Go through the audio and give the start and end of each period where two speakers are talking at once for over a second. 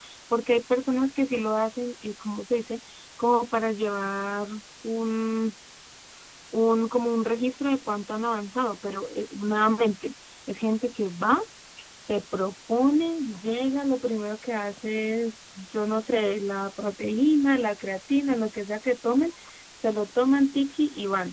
none

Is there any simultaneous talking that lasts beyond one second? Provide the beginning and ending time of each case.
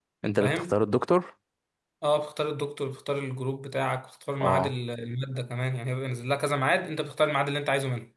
none

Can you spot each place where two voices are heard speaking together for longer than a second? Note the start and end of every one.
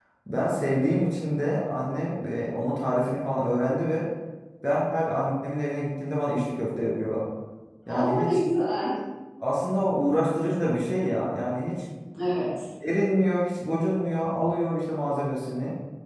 none

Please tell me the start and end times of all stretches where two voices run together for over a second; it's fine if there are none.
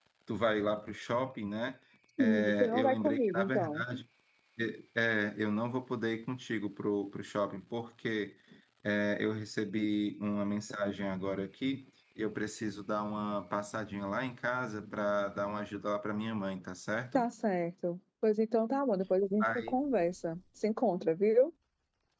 2.2-3.8

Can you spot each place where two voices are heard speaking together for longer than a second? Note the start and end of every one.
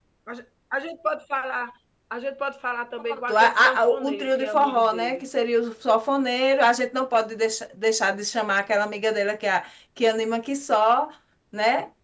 3.0-5.2

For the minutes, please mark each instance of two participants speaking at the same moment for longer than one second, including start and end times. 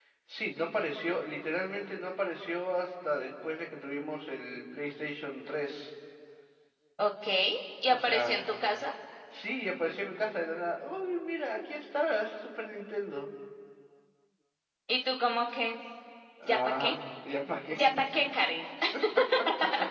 none

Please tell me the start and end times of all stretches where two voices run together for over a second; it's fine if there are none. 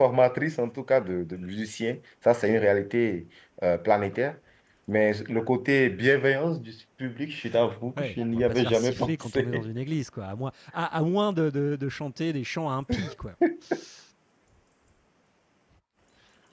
8.0-9.7

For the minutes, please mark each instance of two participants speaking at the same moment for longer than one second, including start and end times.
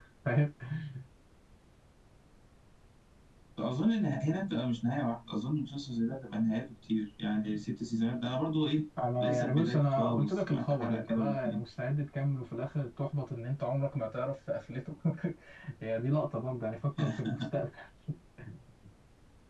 9.2-11.6

